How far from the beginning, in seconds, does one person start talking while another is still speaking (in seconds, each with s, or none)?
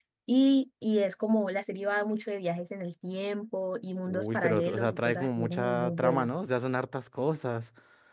4.1 s